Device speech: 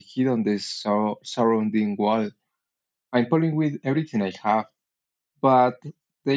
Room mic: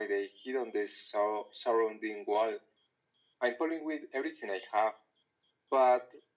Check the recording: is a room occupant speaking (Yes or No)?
No